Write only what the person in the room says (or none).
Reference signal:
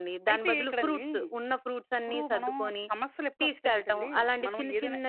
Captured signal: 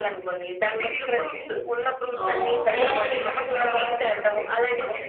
ఆహ్, పిల్లల మీద ఎక్కువగా